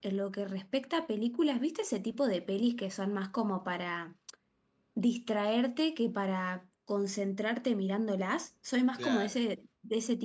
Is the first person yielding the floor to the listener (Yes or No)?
No